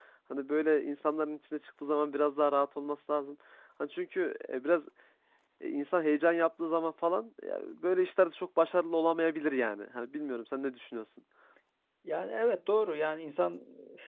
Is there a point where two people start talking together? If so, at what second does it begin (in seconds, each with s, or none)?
none